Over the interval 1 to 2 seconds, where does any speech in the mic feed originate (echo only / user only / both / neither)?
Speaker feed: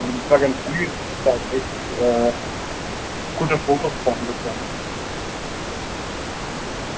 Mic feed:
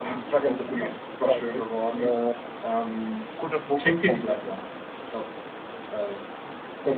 both